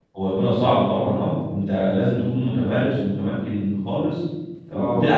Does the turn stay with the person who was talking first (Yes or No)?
Yes